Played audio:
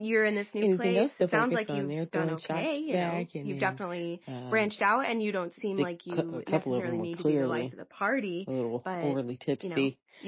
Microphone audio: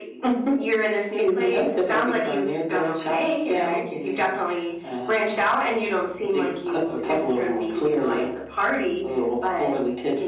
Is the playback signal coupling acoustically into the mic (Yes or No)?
Yes